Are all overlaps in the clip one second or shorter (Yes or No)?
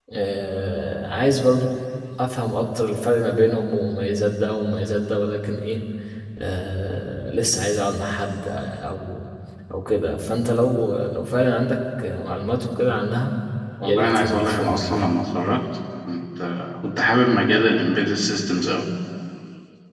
No